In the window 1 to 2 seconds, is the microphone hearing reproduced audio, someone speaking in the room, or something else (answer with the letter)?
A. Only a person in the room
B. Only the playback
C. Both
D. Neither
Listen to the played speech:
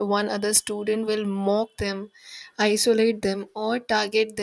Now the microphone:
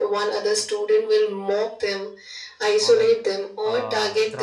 B